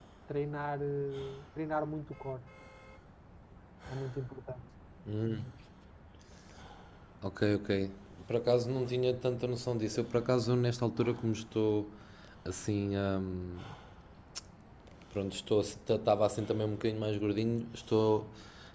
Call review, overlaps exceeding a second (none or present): none